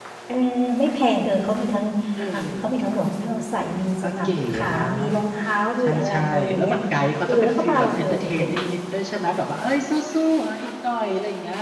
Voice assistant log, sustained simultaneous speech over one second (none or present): present